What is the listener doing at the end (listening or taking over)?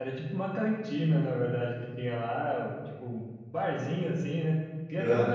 listening